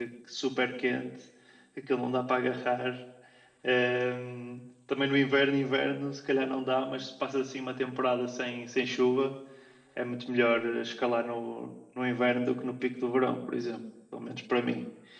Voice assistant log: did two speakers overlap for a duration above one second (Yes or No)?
No